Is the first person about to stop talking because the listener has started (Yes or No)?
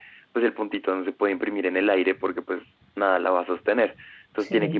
No